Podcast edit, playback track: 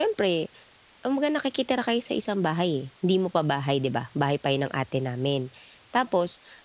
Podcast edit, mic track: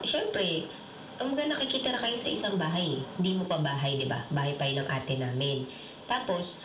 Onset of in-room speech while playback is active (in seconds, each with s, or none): none